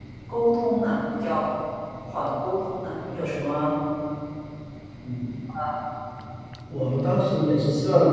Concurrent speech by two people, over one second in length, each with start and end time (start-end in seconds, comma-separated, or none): none